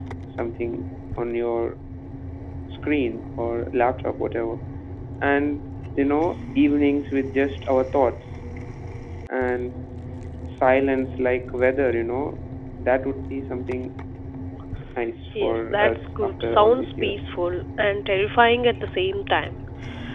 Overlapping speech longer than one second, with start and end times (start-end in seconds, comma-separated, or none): 15.4-17.2